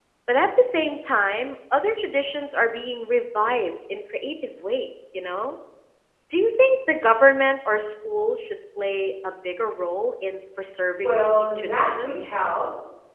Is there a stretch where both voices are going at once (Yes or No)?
Yes